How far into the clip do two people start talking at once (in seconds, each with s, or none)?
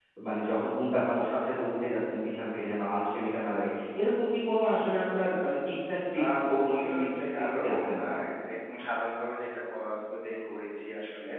6.1 s